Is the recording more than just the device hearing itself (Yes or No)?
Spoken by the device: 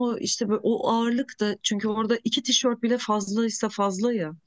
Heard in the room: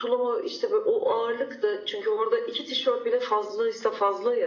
No